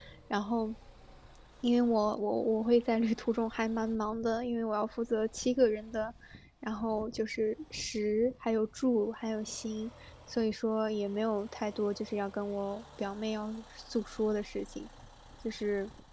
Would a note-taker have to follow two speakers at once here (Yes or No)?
No